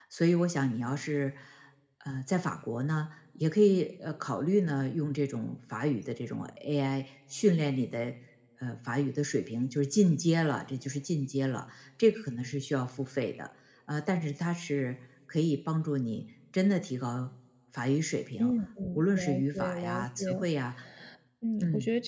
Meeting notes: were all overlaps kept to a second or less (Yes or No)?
No